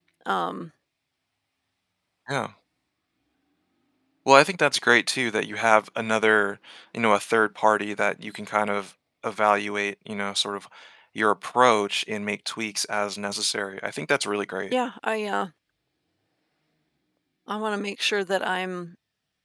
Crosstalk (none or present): none